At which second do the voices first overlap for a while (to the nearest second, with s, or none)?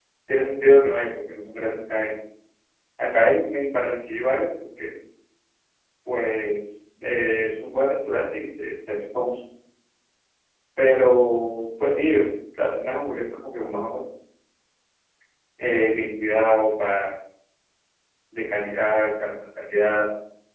none